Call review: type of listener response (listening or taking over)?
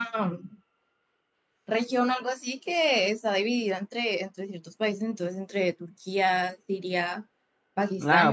taking over